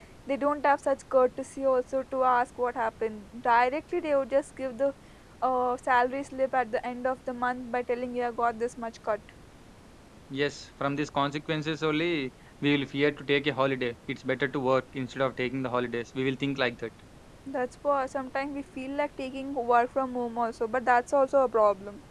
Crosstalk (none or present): none